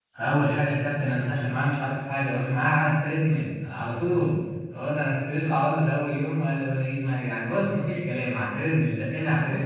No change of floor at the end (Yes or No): No